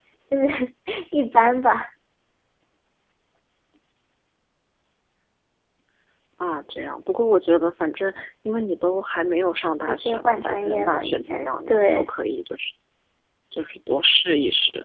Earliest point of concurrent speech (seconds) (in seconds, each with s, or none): 9.9 s